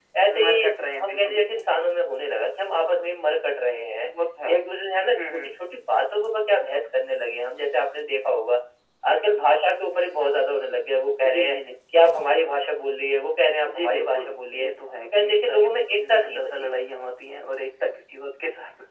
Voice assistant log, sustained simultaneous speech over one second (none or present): present